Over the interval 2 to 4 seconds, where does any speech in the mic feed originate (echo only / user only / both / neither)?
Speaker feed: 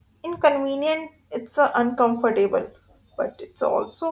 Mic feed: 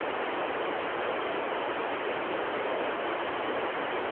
neither